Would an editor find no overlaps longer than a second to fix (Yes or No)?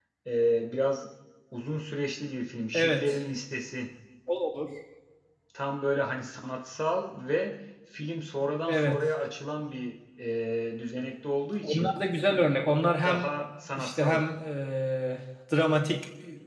Yes